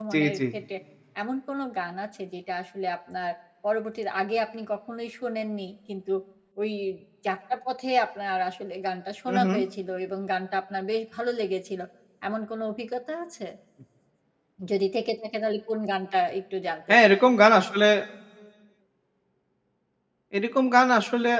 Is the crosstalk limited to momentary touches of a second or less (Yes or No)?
Yes